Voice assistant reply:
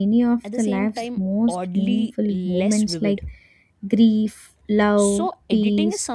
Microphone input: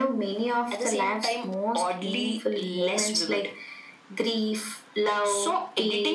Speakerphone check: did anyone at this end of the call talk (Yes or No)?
No